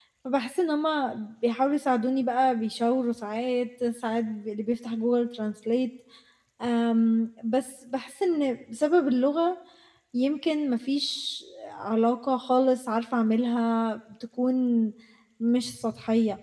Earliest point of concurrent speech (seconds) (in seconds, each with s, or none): none